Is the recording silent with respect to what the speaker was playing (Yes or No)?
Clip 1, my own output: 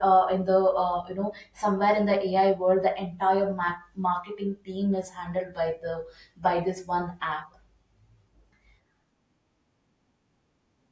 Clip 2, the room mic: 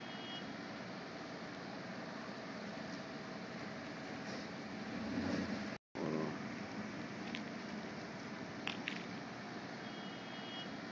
Yes